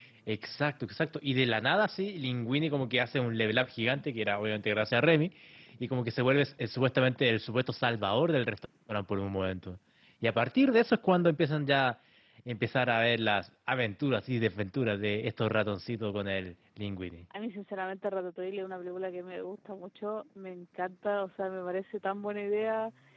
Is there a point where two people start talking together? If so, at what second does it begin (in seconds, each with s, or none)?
none